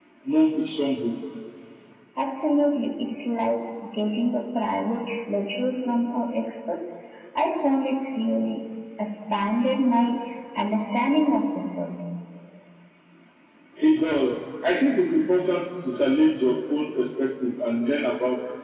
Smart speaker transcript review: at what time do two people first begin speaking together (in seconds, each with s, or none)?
none